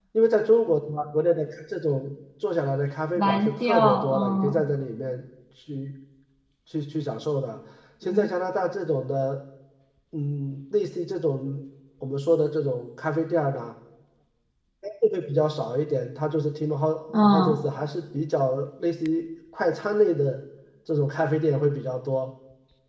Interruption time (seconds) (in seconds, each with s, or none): 3.1 s